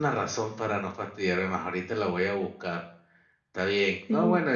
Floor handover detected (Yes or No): No